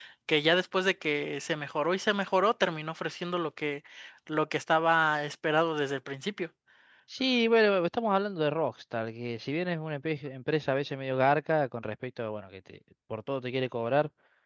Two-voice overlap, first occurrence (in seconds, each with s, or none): none